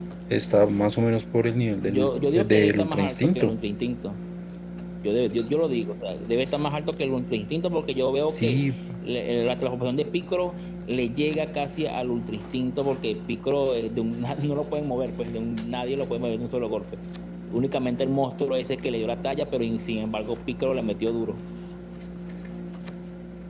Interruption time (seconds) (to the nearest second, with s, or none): 2 s